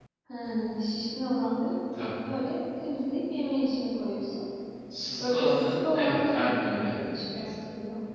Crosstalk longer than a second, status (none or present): present